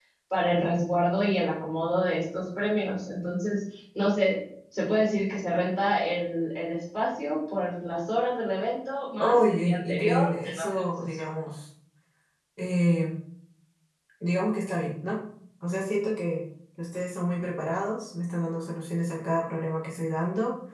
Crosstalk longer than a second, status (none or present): present